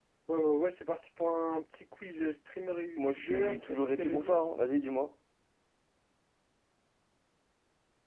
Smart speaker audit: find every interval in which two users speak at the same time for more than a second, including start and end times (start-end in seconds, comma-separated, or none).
3.0-4.4